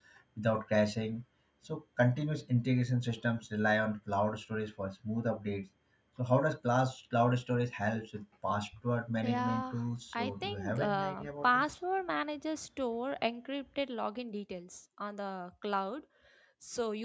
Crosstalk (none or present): present